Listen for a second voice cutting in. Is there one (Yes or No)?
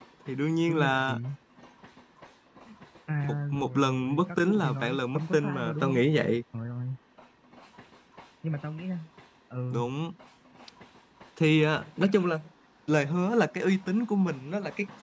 Yes